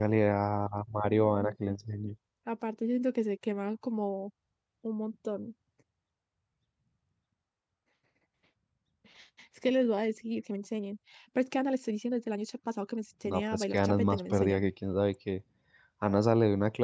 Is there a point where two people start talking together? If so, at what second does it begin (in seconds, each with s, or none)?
13.2 s